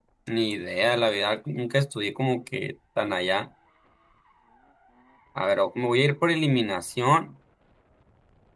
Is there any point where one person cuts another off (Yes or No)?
No